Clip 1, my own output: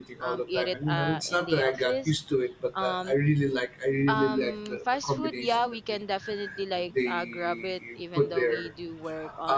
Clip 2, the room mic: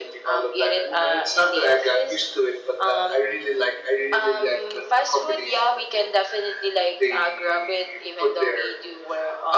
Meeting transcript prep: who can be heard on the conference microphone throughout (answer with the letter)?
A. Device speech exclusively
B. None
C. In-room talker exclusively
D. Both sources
A